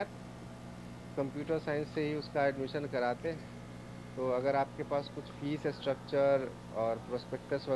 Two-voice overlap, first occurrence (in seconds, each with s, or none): none